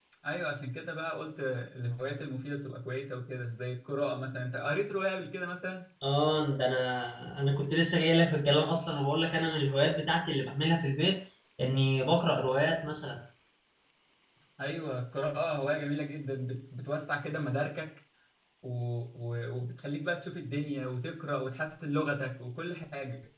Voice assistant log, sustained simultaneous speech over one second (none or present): none